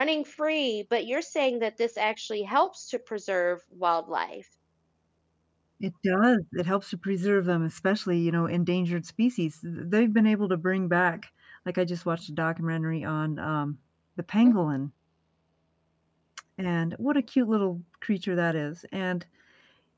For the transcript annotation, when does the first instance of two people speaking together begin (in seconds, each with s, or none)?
none